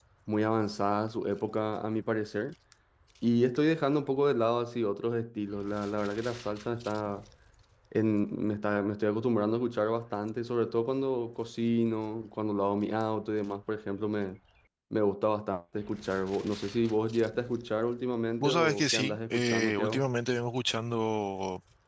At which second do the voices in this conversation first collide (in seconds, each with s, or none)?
18.4 s